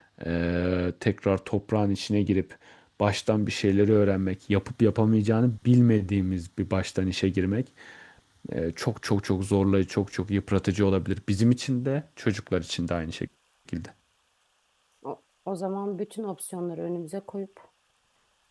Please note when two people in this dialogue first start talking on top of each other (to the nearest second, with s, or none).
none